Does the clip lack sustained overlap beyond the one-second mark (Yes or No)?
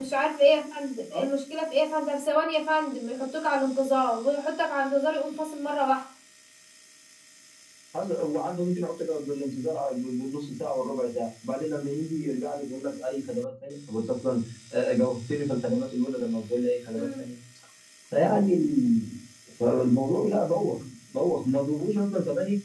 Yes